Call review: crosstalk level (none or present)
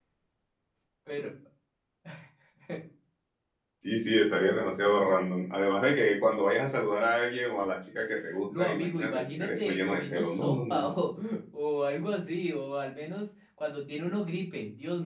present